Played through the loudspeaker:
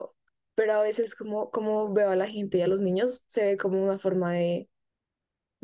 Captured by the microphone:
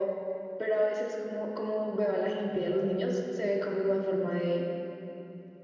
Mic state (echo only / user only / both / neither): echo only